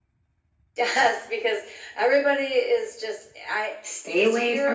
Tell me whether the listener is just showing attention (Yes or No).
No